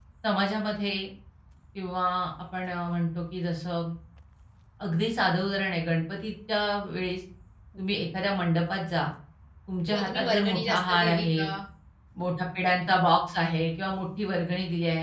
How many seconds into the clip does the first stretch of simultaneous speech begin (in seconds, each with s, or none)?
9.9 s